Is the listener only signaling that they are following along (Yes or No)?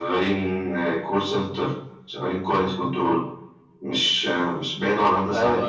No